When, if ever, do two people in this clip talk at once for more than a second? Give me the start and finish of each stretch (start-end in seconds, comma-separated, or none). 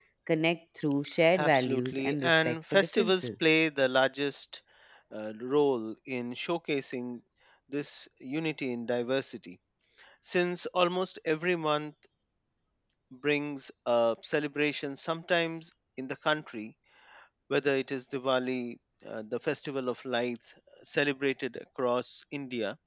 1.4-3.4